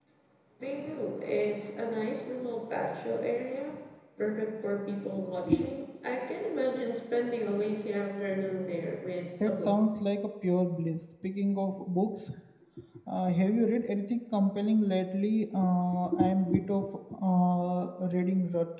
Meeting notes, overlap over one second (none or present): none